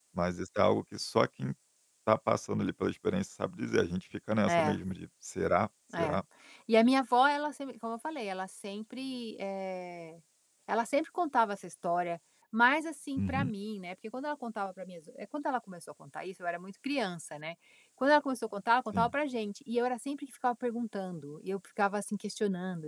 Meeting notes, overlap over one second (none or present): none